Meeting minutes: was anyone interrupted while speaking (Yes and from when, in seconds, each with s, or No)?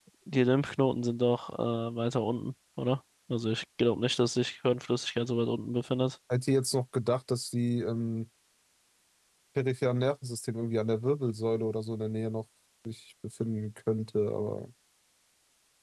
No